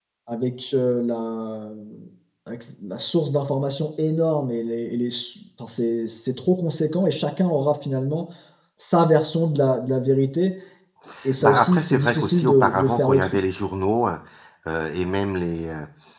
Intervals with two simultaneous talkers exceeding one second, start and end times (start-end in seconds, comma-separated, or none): 11.4-13.4